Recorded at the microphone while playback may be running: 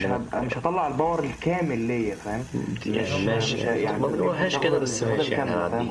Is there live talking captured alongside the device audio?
Yes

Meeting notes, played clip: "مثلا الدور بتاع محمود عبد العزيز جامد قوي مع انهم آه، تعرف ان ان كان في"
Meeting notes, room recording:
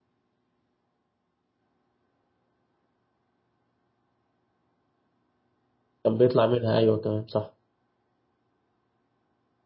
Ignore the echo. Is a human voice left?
Yes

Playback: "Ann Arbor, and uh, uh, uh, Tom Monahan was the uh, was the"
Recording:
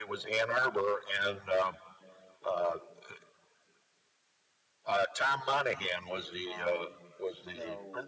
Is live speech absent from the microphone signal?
No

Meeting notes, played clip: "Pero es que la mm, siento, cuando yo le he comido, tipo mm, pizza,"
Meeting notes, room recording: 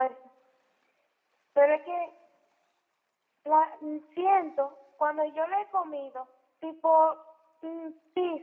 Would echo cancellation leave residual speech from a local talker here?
No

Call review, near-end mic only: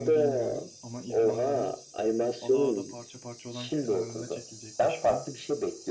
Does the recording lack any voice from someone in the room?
No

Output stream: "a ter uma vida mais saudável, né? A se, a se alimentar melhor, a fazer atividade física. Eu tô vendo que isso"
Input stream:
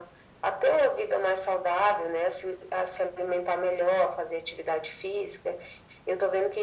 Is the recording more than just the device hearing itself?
No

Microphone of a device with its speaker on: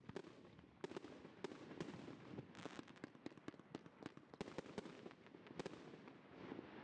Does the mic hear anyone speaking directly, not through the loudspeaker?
No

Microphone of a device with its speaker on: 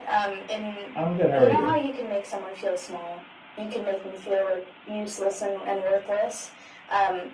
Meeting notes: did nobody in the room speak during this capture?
No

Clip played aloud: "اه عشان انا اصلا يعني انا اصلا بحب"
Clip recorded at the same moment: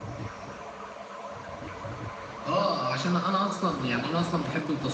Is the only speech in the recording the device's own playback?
Yes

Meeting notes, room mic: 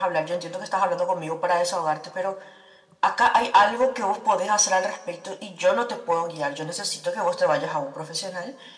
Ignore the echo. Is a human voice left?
No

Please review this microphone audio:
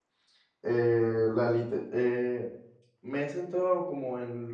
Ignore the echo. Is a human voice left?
Yes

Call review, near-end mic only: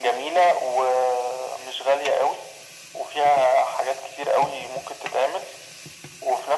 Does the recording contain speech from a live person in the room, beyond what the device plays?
No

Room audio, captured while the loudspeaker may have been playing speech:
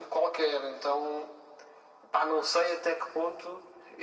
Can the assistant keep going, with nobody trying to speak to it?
Yes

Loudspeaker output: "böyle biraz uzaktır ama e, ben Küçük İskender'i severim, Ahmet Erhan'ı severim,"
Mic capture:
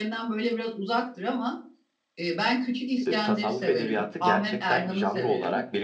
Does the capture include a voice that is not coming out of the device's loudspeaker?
Yes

